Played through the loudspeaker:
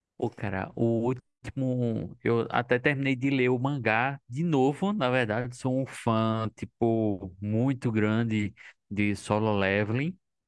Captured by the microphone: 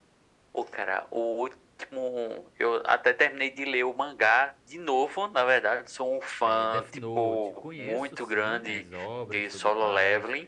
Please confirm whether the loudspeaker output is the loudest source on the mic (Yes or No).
Yes